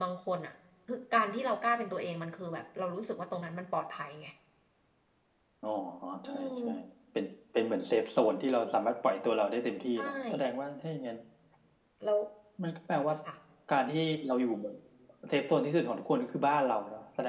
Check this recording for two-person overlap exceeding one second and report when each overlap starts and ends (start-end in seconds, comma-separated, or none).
none